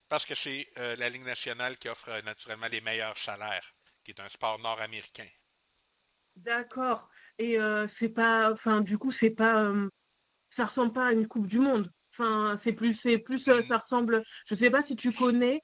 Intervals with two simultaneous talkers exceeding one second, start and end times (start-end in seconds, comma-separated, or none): none